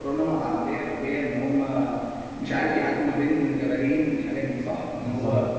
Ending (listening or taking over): taking over